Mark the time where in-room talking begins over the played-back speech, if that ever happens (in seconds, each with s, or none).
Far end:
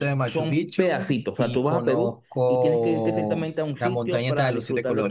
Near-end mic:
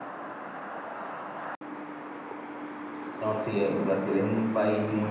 3.2 s